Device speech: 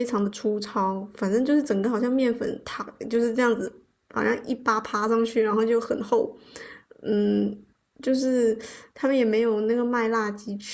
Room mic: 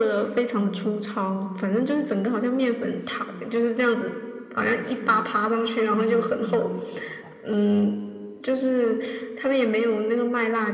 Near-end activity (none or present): present